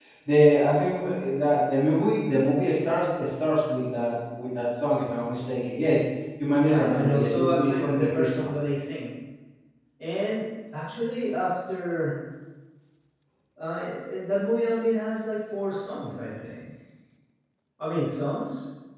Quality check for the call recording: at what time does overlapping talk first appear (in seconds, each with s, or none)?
6.6 s